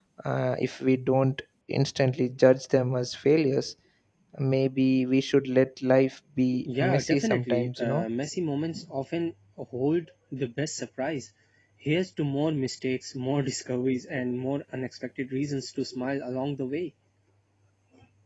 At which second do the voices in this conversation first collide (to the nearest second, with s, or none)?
7 s